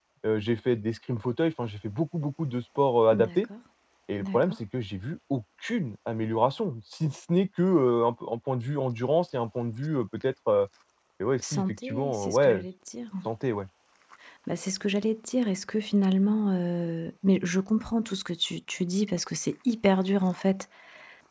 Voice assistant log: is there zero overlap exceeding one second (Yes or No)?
No